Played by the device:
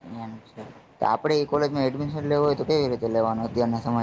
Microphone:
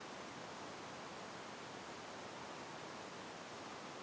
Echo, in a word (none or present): none